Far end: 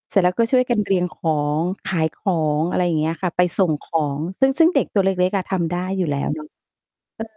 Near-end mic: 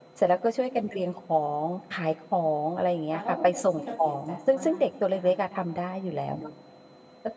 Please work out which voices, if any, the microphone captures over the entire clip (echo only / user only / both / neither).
both